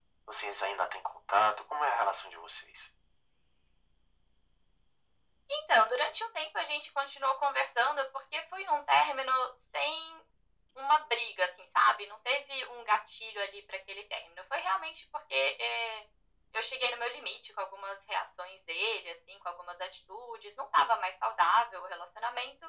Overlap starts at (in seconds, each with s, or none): none